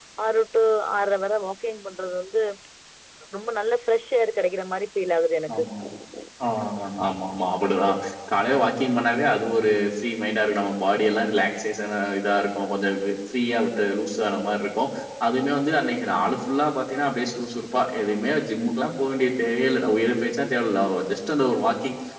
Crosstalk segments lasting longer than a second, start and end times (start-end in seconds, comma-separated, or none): none